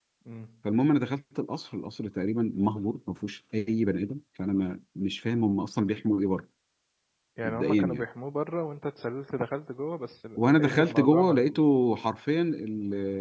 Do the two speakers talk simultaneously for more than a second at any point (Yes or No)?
Yes